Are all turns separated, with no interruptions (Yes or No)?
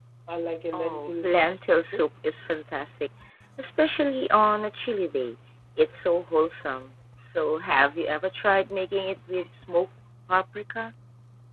No